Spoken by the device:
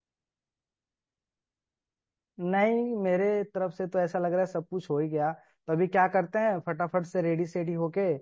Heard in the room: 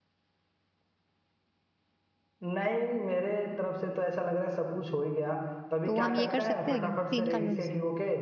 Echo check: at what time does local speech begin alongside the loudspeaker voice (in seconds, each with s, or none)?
5.9 s